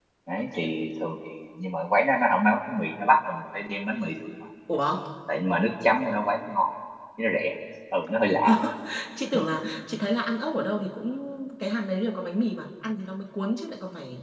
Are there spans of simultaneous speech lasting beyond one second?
No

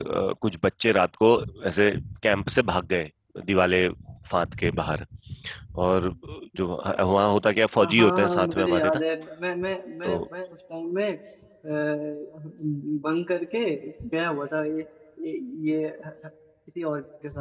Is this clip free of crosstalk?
No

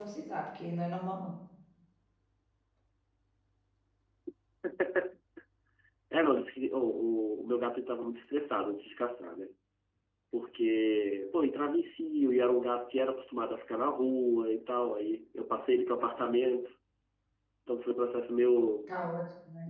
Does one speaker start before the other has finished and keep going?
No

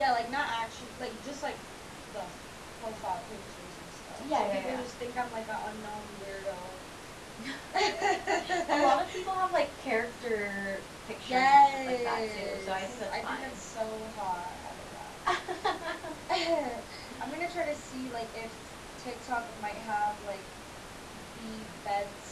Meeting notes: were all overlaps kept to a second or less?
No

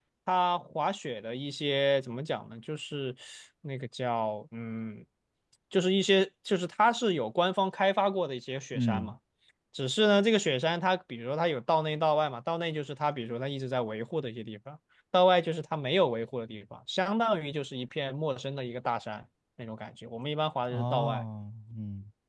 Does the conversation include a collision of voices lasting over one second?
No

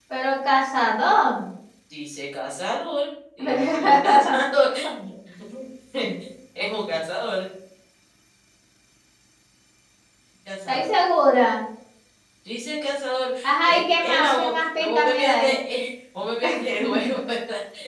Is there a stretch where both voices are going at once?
Yes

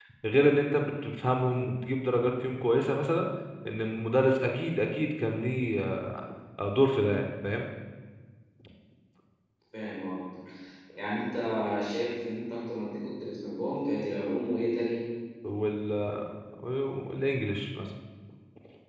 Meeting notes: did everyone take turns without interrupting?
Yes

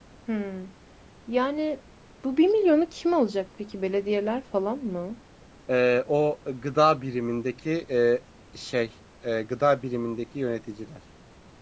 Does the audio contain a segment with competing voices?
No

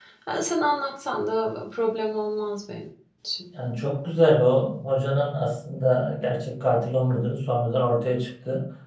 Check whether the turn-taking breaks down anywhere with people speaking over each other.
No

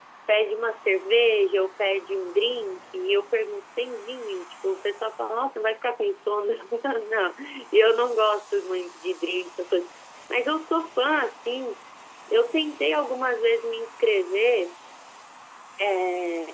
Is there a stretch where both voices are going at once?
No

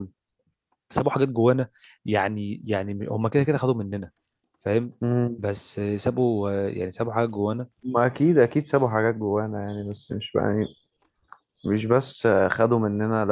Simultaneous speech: No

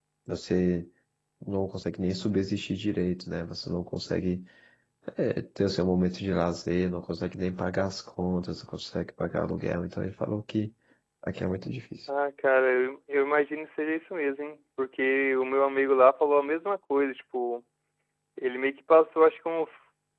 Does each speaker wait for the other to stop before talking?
Yes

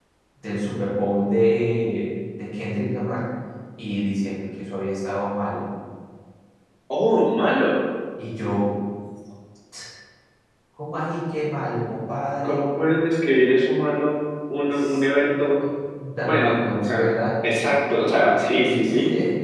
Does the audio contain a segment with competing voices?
Yes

